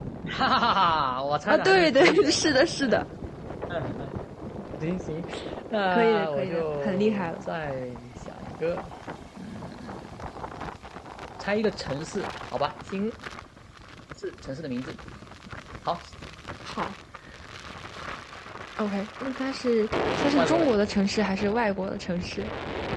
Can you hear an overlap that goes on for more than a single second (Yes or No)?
Yes